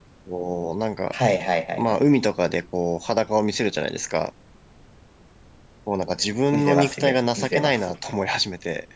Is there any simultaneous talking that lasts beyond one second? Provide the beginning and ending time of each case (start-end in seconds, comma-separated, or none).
6.5-7.8